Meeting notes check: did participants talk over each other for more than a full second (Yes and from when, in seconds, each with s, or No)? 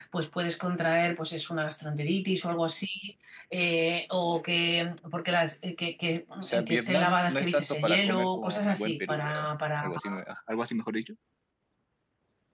Yes, from 6.4 s